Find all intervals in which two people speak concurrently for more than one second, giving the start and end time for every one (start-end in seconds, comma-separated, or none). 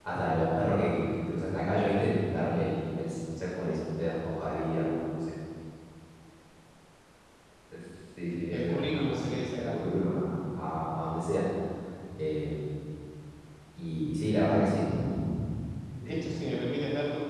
8.5-9.8